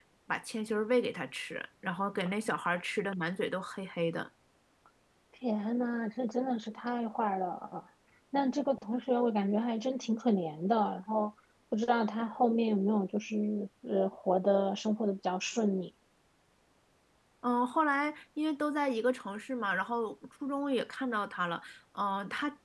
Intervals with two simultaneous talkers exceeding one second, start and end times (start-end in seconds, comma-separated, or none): none